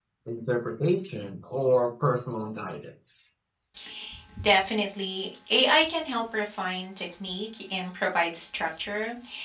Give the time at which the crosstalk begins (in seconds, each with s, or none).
none